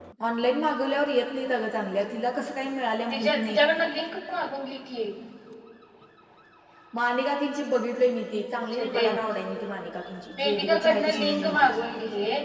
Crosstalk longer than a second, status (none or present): present